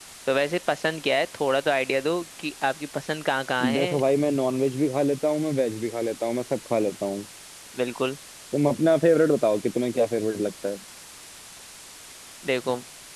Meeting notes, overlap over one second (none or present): none